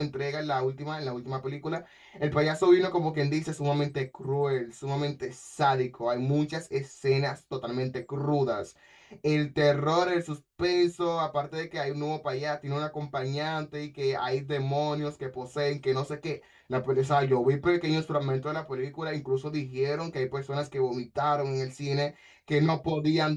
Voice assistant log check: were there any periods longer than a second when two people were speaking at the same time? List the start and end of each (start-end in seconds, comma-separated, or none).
none